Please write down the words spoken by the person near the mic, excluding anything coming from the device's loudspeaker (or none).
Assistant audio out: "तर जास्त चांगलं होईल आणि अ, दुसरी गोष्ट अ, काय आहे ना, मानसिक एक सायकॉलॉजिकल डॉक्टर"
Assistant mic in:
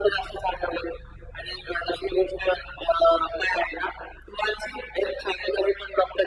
none